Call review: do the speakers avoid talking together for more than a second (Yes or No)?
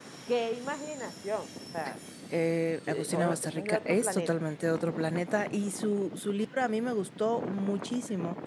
No